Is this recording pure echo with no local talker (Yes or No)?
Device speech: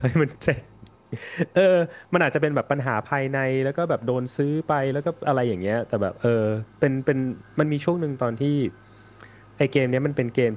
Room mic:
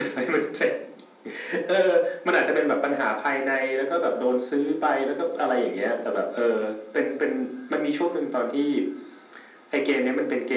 Yes